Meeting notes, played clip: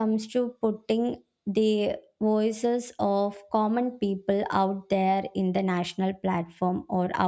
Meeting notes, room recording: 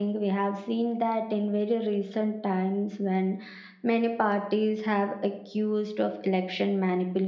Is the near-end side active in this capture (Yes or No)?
Yes